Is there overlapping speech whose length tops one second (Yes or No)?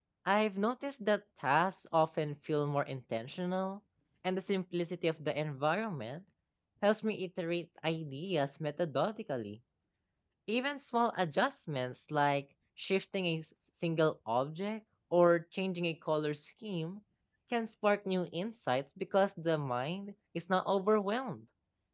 No